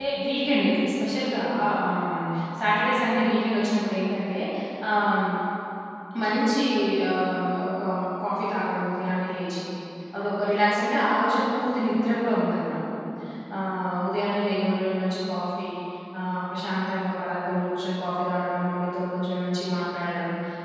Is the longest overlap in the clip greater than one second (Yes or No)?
No